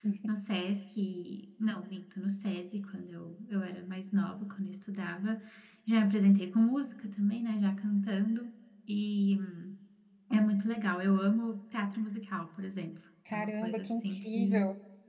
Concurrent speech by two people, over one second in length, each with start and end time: 13.3-14.6

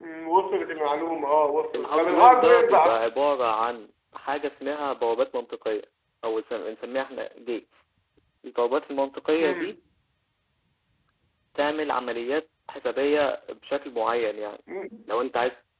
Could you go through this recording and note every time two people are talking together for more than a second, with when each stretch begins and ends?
1.7-3.0

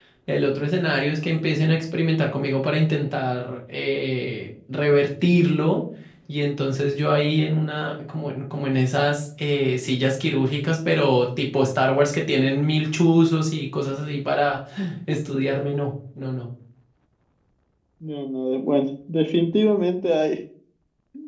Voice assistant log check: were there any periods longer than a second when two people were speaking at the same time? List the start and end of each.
none

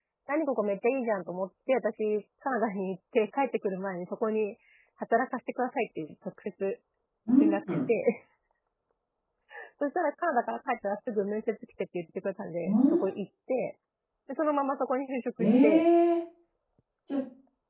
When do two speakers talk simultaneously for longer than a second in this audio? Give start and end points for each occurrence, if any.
none

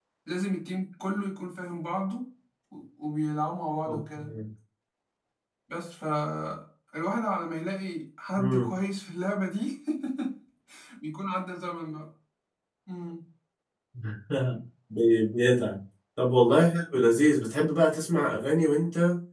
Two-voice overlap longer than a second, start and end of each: none

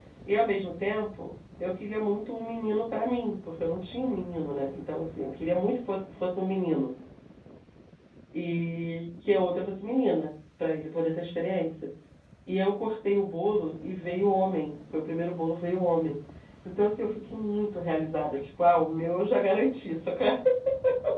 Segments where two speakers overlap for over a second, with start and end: none

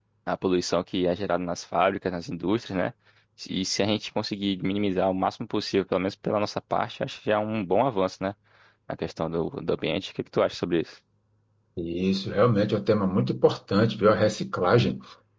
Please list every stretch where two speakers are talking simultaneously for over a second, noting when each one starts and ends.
none

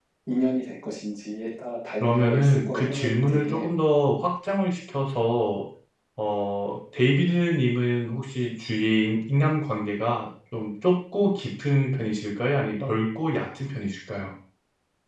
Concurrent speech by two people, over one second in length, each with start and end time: 2.0-3.6

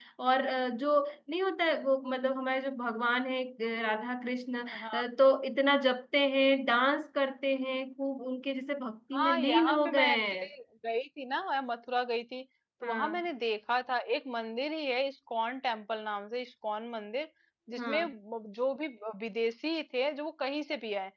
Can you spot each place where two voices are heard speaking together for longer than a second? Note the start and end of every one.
9.2-10.5

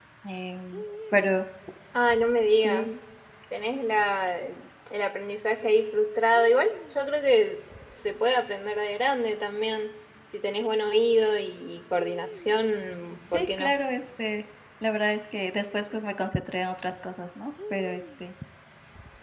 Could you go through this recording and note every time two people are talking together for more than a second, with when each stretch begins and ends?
none

